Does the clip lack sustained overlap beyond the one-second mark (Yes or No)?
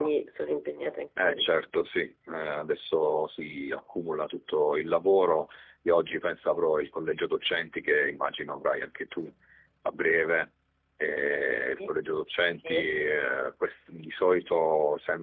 Yes